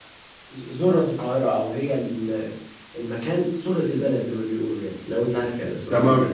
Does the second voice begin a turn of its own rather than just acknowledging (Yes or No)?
Yes